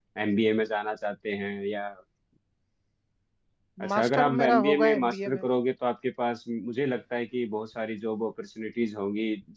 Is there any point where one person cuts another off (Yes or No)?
Yes